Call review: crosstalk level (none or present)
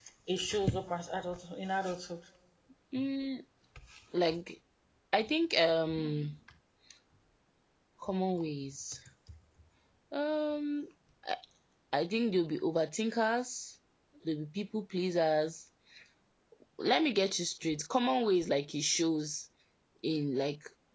none